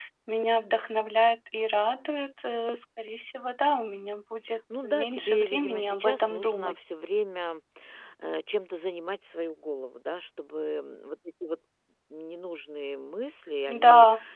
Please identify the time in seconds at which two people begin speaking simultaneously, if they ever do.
5 s

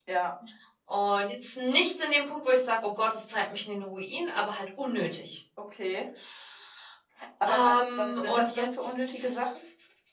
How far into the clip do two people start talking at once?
7 s

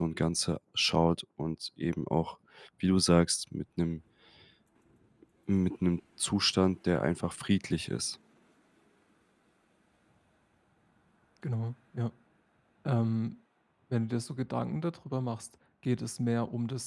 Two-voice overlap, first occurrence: none

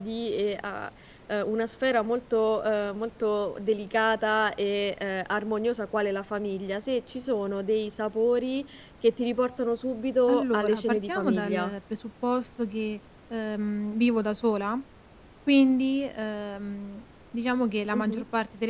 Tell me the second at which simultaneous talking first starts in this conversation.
10 s

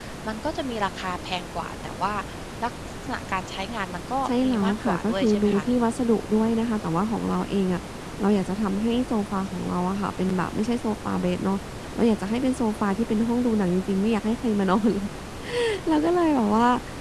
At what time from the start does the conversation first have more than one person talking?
4 s

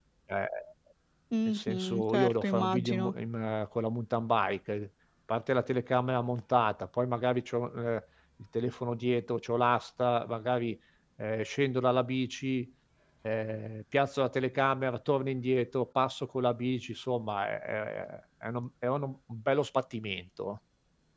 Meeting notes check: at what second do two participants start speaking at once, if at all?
1 s

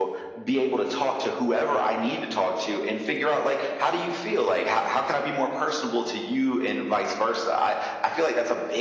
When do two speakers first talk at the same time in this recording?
none

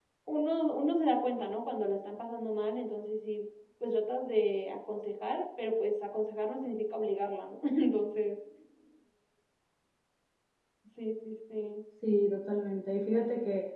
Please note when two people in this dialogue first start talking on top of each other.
none

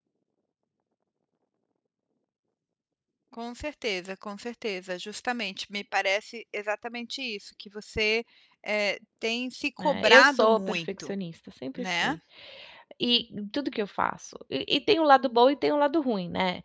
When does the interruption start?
10 s

